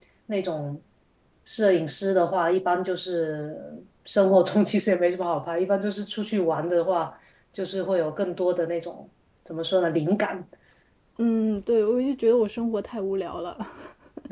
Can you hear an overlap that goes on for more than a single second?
No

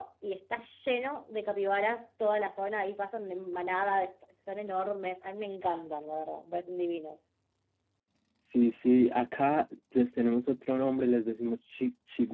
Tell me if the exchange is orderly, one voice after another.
Yes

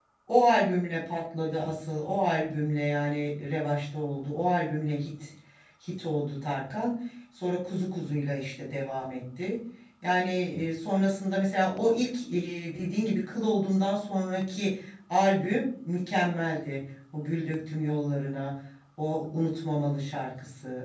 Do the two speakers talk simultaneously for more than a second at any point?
No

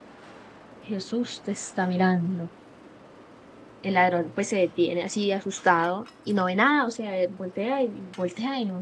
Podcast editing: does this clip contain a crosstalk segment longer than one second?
No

